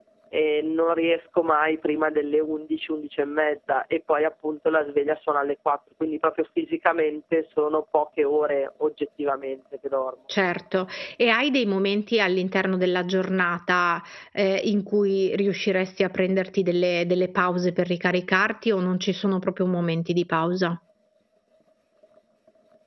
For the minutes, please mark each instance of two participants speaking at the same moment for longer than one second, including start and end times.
none

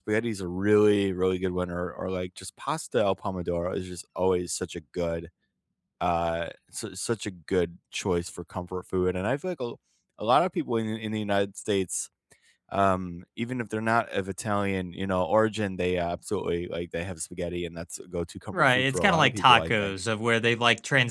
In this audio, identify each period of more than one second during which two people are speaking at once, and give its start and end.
18.5-19.9

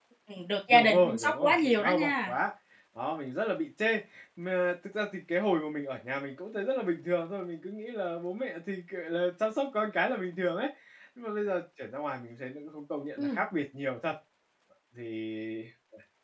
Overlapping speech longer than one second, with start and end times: 0.7-2.3

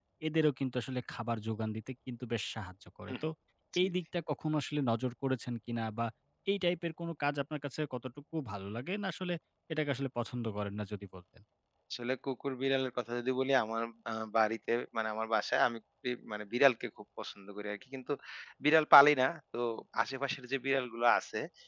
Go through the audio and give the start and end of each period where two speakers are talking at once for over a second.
none

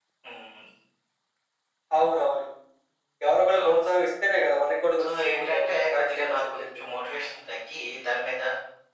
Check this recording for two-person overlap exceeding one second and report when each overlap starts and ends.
5.0-6.8

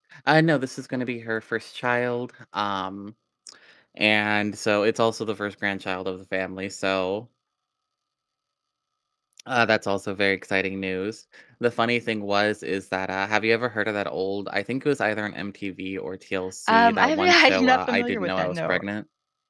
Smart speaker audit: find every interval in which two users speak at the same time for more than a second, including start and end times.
16.7-18.8

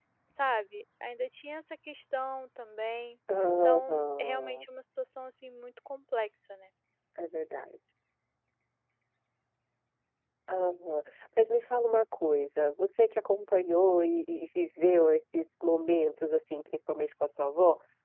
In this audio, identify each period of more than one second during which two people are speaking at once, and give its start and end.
3.4-4.7

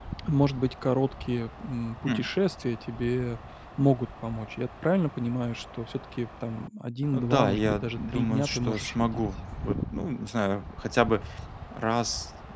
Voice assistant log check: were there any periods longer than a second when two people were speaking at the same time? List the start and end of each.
7.1-9.3

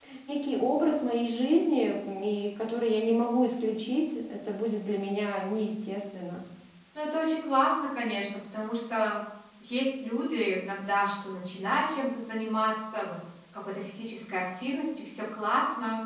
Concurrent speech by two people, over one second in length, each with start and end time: none

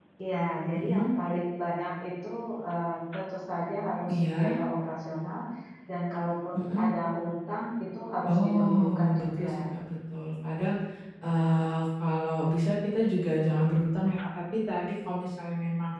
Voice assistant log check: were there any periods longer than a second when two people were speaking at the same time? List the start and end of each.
8.3-9.5

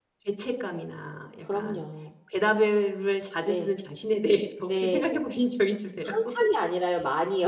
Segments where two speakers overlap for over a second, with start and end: none

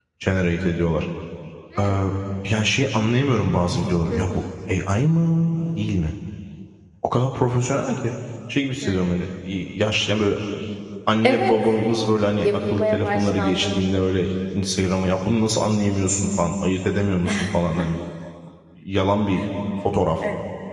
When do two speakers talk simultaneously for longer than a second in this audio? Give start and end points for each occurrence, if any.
12.4-13.7

